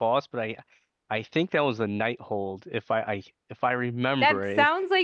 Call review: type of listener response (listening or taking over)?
taking over